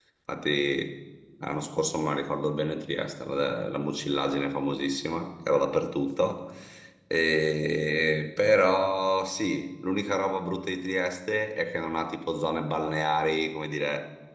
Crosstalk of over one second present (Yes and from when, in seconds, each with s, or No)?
No